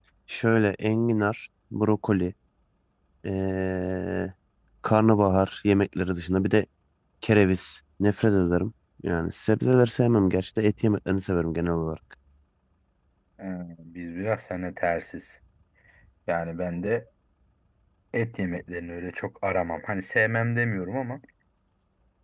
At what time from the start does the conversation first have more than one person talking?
none

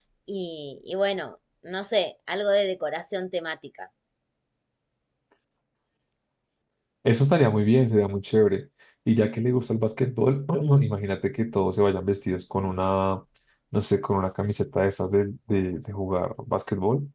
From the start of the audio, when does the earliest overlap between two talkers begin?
none

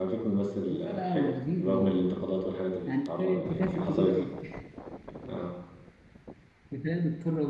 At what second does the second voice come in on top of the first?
0.7 s

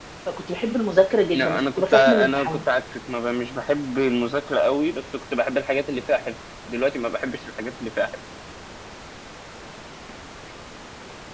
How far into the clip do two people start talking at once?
1.3 s

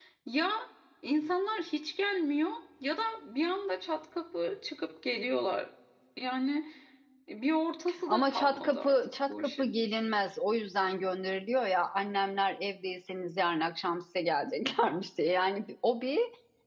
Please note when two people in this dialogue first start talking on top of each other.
8.1 s

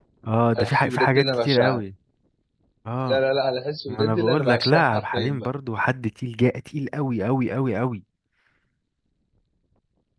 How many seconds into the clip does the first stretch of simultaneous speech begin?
0.6 s

